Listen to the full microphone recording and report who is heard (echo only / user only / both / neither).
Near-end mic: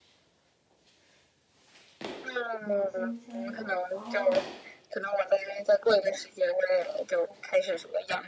both